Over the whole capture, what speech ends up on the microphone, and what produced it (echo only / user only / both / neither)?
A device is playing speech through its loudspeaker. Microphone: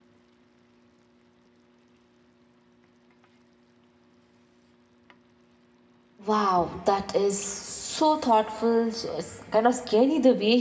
user only